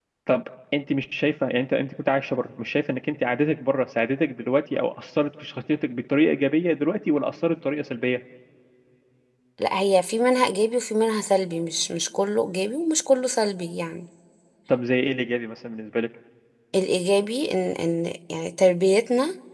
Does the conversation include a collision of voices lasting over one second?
No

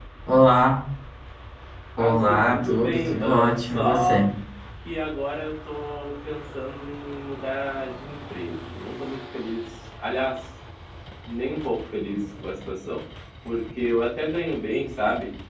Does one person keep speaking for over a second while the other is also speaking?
Yes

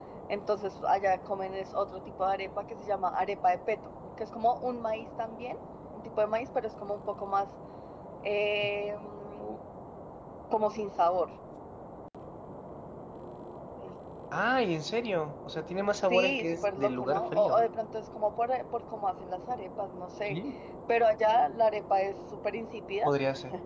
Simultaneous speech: Yes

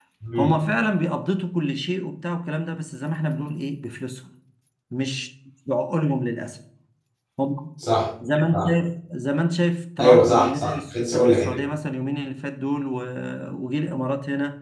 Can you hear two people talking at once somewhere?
Yes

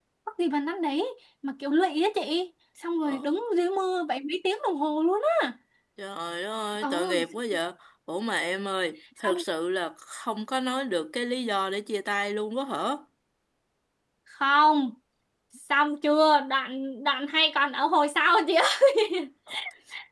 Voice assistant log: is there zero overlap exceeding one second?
Yes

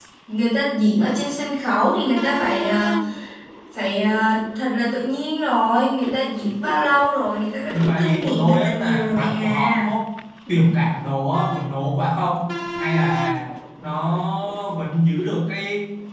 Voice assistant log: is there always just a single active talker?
No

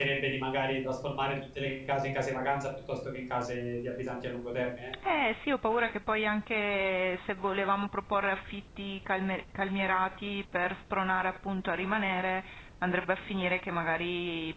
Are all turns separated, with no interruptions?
Yes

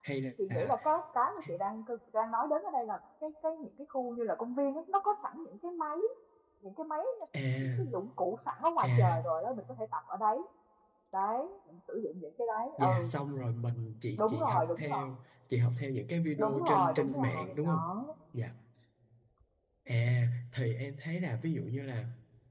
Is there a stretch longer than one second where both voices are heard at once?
Yes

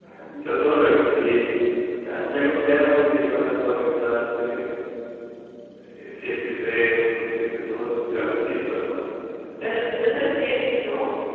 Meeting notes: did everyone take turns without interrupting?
Yes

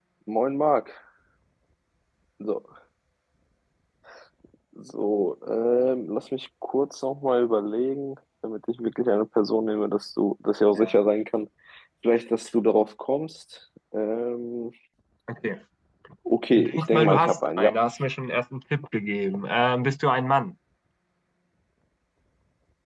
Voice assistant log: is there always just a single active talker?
No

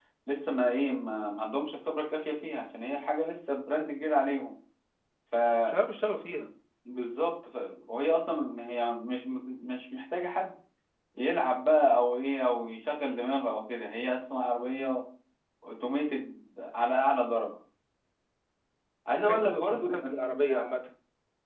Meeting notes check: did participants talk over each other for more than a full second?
Yes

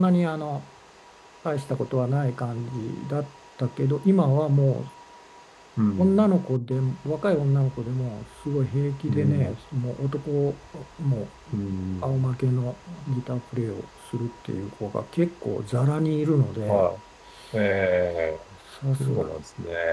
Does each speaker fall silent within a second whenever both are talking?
Yes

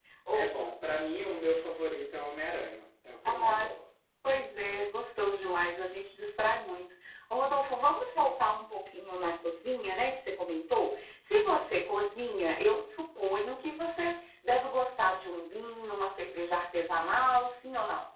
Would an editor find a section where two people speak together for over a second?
No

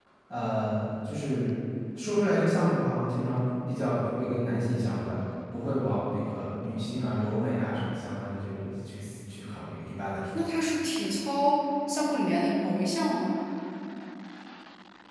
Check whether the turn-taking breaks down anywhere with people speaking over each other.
No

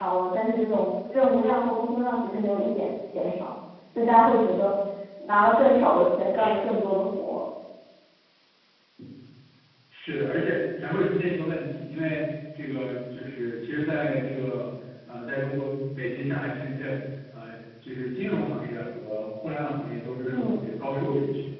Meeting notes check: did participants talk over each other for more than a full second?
No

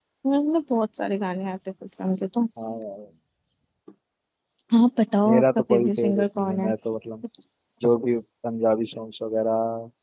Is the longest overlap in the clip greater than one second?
Yes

